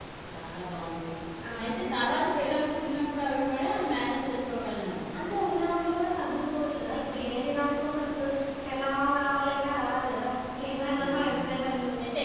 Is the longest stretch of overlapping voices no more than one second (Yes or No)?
Yes